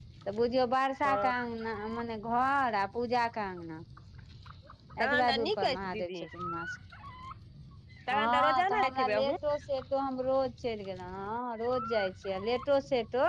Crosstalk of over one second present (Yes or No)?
Yes